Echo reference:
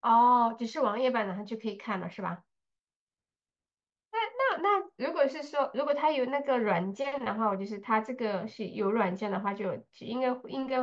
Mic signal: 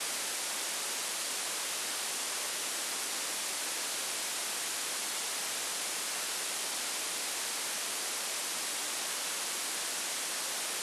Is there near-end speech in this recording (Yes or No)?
No